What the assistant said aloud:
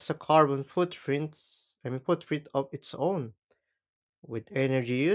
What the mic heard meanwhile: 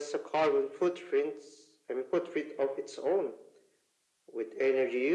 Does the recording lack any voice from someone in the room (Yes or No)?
Yes